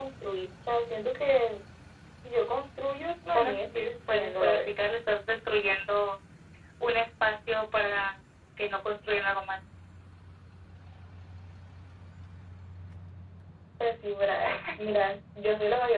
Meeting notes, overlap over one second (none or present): present